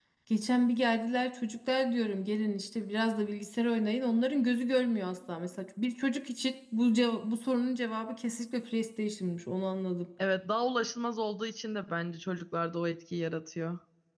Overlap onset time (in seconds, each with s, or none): none